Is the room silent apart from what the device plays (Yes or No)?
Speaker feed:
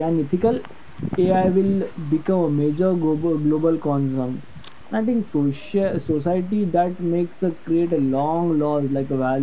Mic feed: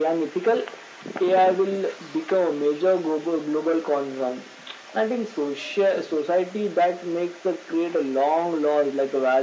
Yes